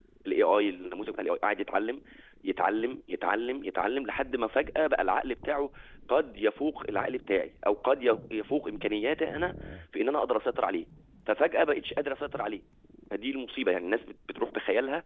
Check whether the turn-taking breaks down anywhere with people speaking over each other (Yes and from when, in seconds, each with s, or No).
No